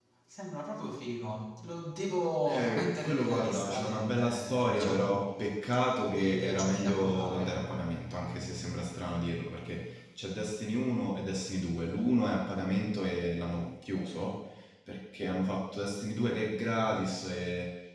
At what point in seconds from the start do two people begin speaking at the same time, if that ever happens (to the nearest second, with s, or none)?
2 s